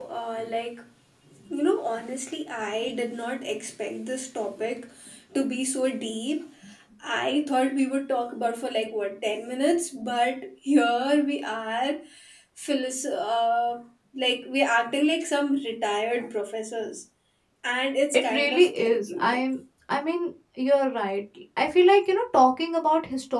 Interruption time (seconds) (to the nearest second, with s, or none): 18 s